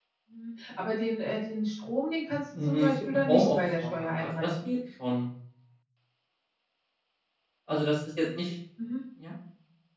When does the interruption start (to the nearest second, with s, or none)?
3 s